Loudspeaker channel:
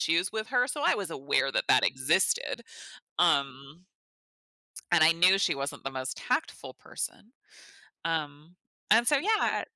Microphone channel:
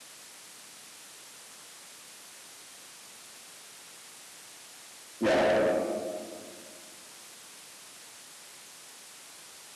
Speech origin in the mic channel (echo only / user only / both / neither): user only